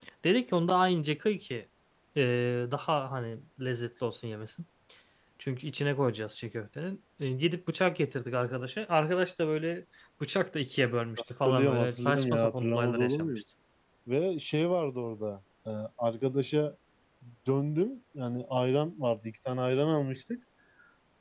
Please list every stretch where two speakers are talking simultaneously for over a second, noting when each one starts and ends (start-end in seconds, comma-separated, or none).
11.4-13.4